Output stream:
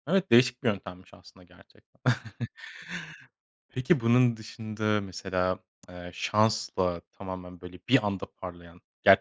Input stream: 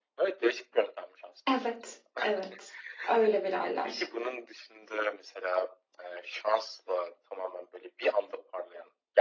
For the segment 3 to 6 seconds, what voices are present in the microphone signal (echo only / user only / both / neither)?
both